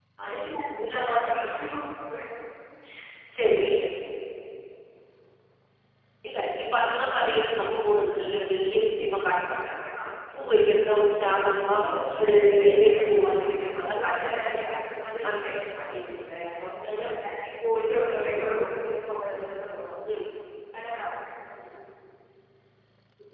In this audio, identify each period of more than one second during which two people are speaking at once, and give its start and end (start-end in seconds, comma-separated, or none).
12.2-14.7